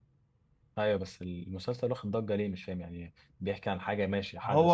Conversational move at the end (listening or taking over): taking over